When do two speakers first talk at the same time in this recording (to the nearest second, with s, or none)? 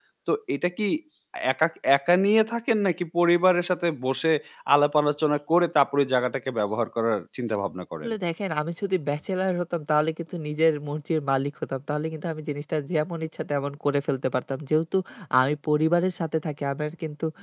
none